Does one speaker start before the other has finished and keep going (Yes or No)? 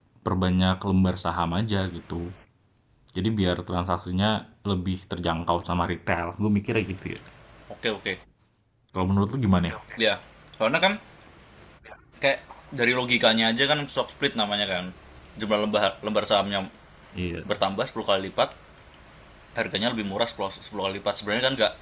No